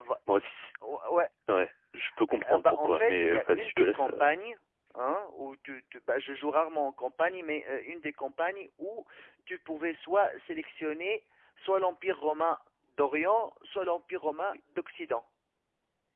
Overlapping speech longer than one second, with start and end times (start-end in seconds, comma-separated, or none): 2.5-4.2